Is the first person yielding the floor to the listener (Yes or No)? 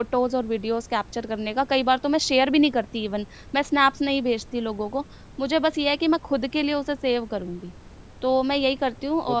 No